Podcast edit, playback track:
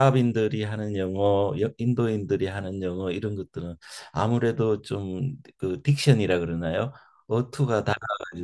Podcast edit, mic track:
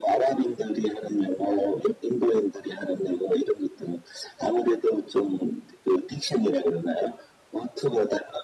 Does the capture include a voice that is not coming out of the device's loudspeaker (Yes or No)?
No